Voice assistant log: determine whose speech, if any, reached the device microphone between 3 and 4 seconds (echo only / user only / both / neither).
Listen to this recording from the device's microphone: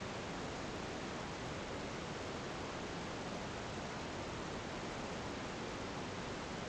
neither